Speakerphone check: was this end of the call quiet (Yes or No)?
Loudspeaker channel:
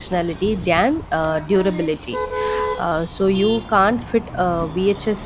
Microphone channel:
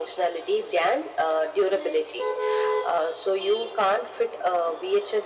Yes